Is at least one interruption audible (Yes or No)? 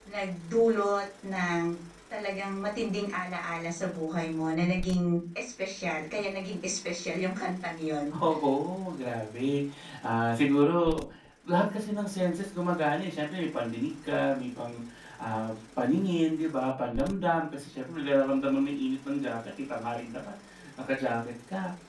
No